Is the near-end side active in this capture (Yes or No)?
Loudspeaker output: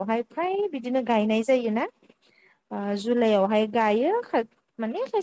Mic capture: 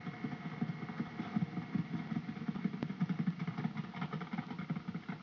No